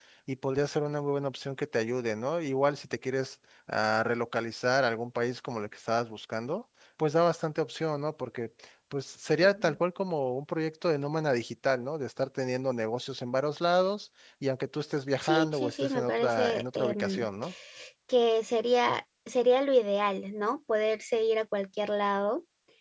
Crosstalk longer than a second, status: present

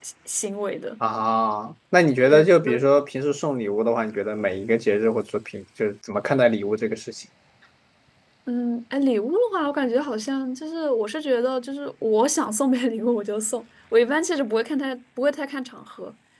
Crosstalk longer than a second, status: none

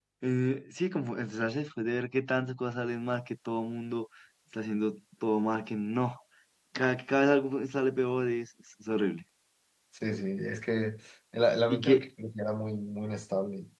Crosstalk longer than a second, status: none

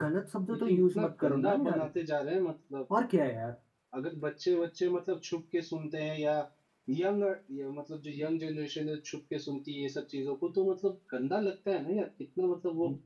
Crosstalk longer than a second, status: present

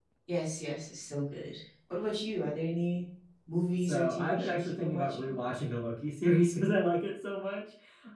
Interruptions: present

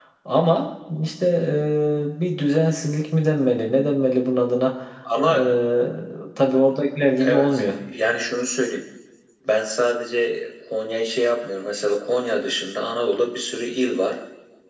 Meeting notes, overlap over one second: none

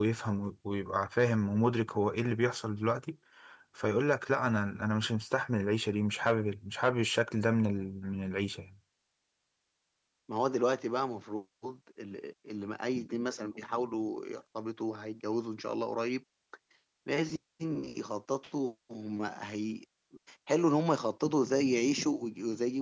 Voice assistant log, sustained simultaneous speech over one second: none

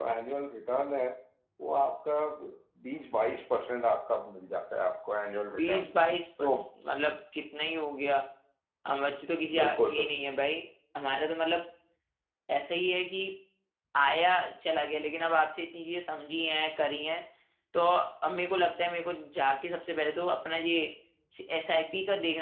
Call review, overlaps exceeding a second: none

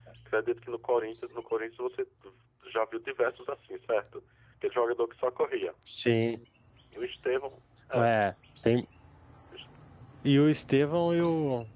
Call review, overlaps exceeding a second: none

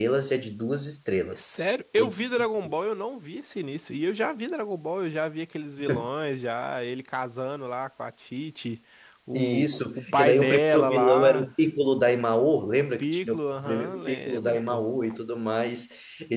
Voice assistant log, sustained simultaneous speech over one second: present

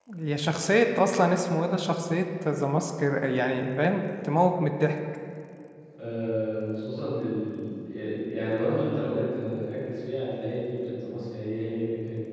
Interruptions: none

